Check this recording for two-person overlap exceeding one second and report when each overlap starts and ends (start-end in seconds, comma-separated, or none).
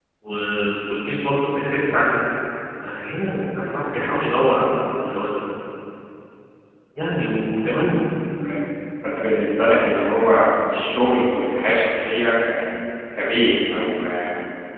none